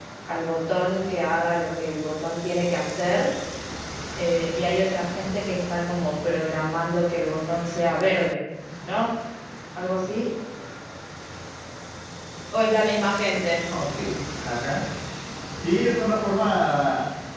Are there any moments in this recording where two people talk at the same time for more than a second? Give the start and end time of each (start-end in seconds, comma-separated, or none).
none